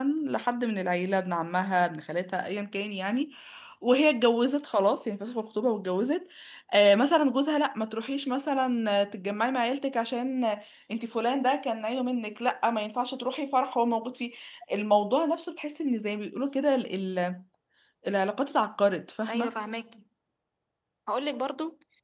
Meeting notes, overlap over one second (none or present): none